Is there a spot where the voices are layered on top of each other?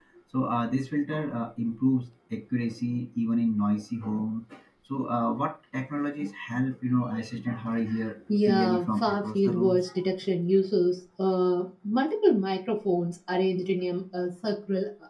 Yes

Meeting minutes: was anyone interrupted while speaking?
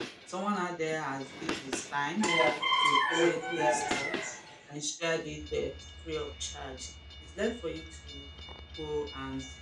Yes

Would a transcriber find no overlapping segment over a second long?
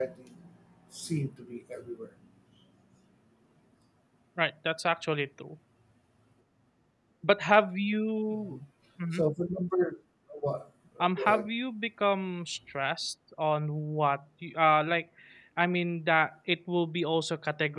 Yes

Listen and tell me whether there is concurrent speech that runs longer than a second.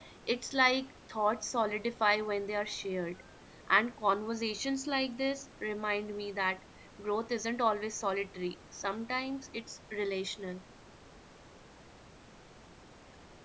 No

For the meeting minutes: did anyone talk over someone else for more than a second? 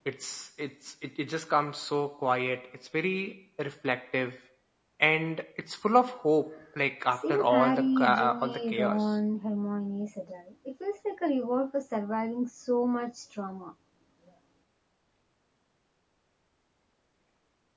Yes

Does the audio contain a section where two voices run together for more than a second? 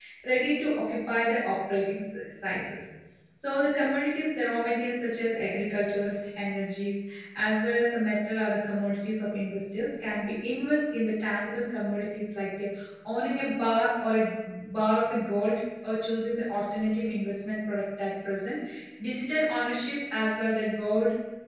No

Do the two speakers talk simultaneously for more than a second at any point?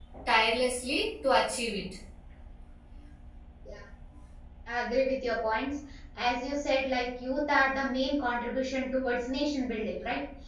No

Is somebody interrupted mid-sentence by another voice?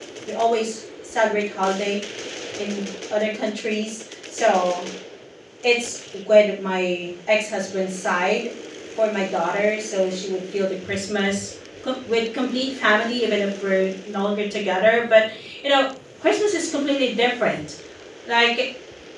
No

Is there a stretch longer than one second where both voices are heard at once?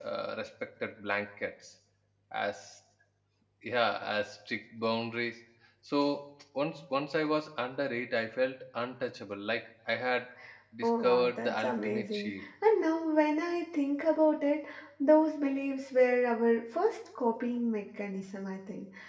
Yes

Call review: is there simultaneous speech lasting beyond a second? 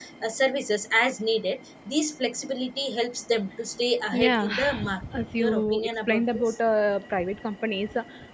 Yes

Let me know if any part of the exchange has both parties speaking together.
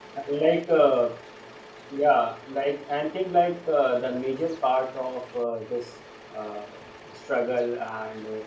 No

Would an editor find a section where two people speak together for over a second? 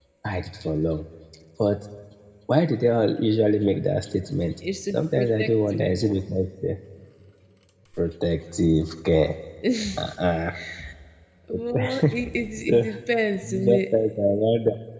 Yes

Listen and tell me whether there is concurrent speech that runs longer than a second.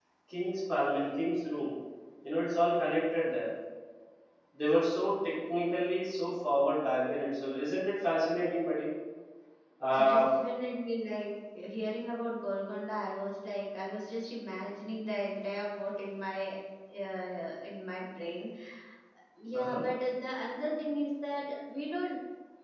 No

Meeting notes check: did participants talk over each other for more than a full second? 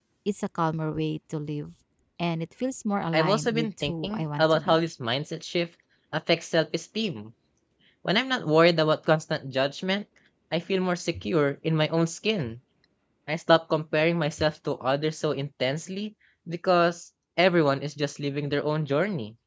Yes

